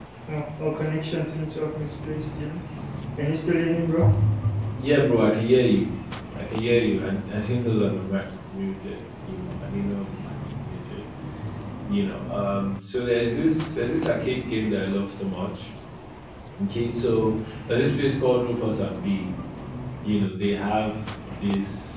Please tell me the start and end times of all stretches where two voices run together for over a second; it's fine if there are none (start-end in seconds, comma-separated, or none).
none